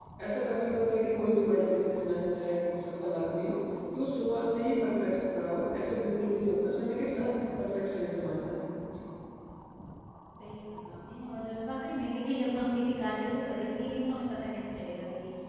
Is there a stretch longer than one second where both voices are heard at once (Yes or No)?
No